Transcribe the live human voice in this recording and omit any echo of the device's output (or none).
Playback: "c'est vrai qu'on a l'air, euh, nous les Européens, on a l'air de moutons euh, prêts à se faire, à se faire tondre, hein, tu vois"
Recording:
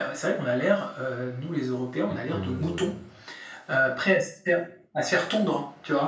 et que, euh,